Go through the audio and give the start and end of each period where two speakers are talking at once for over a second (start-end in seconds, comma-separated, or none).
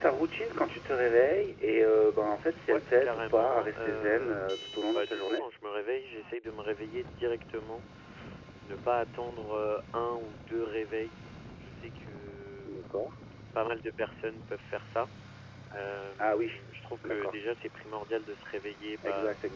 2.7-5.4